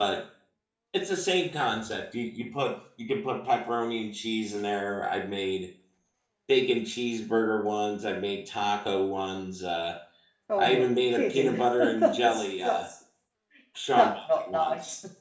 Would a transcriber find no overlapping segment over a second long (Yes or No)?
No